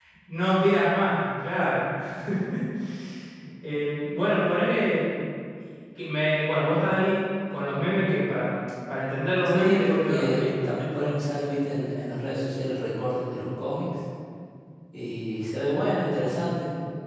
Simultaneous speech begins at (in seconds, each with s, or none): 9.4 s